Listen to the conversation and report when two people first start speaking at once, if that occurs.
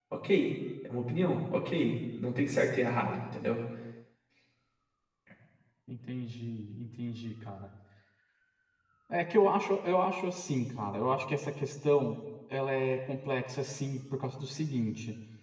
none

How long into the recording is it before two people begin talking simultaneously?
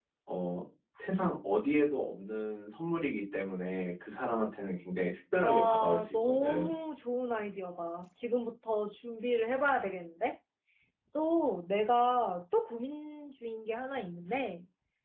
5.4 s

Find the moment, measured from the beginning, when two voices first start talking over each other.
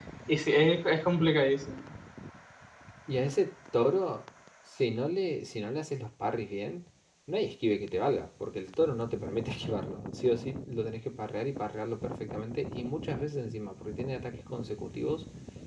none

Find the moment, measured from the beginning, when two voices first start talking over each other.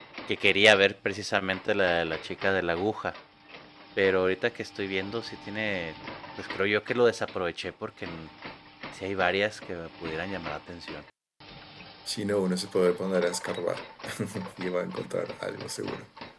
none

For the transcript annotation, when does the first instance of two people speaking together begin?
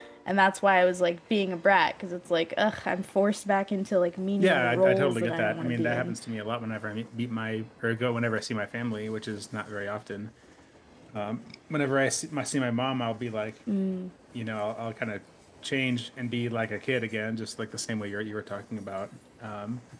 4.4 s

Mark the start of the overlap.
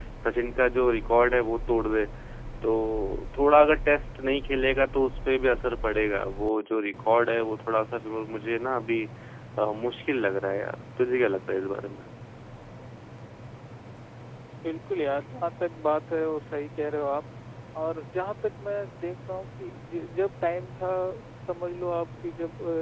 none

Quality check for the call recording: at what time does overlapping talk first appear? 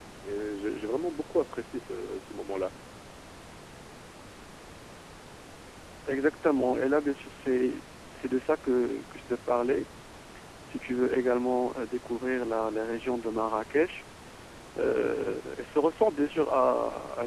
none

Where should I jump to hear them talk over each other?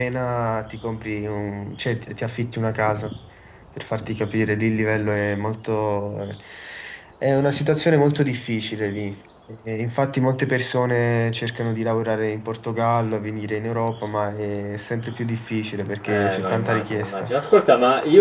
16.1 s

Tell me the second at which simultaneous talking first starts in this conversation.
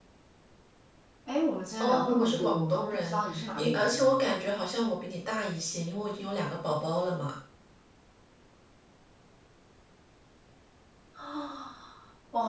1.8 s

